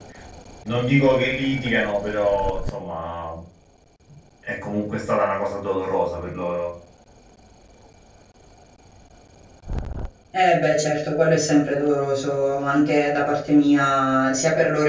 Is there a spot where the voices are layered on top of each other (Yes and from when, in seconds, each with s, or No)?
No